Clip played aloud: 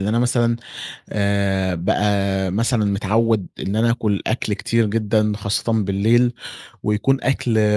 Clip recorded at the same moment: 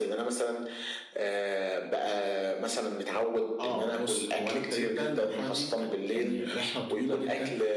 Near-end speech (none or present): present